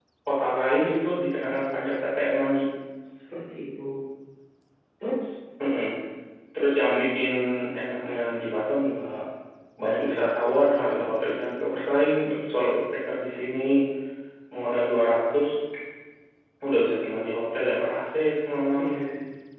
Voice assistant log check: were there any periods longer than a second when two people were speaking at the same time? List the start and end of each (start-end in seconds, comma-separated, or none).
none